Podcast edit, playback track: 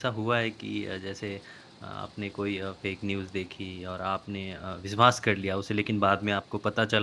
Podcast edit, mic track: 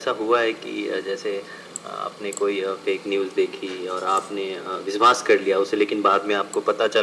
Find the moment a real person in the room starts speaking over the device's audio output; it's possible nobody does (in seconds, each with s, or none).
none